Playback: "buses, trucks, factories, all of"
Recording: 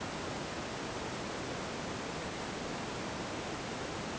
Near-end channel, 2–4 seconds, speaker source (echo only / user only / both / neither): neither